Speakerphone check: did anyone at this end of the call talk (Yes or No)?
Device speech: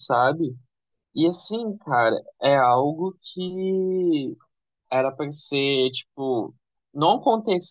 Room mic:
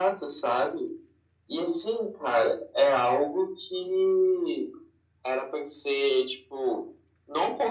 No